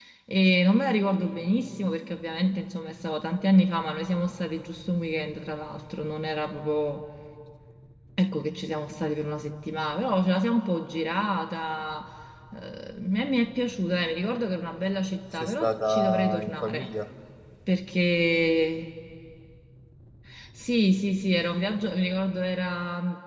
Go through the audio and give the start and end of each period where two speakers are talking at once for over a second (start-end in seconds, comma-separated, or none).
15.3-16.9